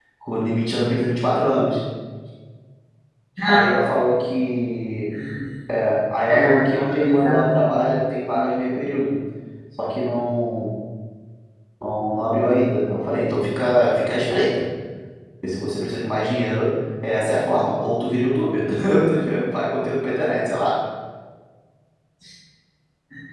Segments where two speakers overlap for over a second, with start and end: 6.3-7.9

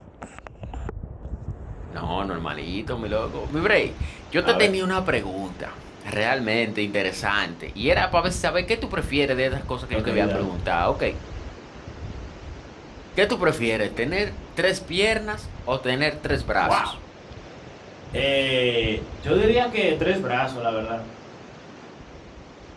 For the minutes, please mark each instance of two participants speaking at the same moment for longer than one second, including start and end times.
none

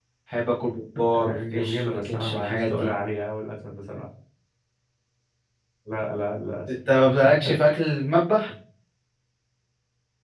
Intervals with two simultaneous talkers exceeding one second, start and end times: 1.2-2.9

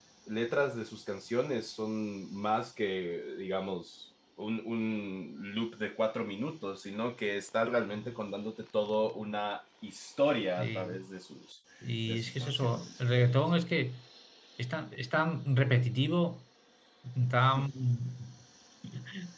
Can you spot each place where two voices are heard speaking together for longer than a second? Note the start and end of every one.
12.1-13.3

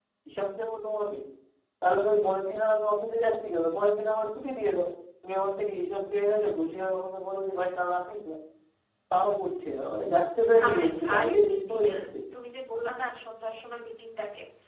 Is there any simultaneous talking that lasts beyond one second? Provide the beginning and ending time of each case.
10.7-12.0

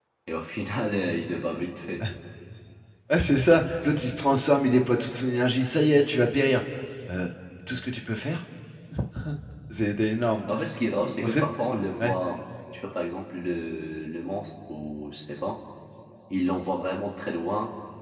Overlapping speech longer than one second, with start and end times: none

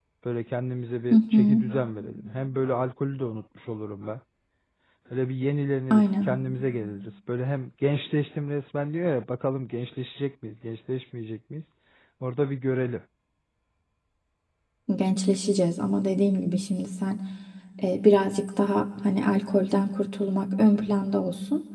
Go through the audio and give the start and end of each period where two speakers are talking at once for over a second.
none

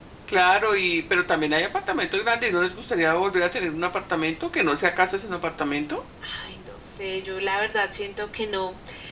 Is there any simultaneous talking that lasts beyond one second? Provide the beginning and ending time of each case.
none

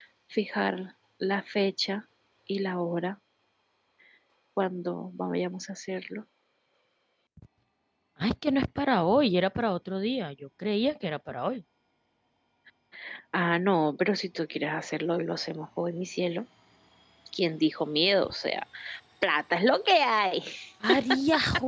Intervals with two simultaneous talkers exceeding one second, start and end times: none

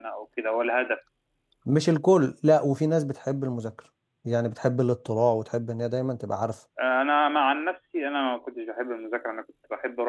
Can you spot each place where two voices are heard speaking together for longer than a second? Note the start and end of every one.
none

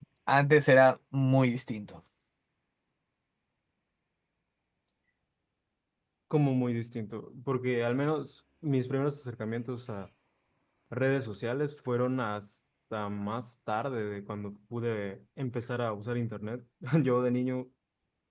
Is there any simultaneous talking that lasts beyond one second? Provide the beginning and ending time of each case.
none

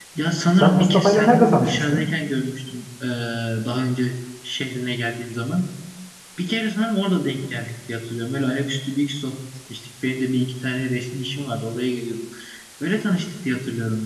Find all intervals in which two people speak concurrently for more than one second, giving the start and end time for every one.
0.6-2.0

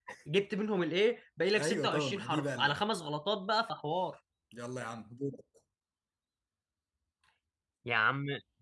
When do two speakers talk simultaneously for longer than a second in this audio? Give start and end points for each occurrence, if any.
1.6-2.8

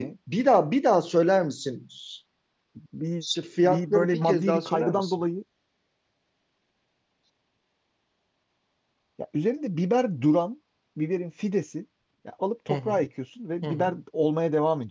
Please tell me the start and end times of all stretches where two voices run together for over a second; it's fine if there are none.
3.6-5.1

